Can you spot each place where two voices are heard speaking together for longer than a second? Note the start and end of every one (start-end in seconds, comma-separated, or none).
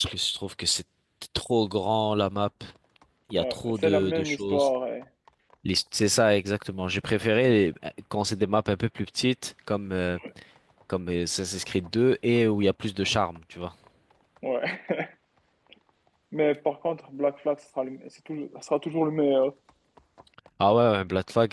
3.3-4.7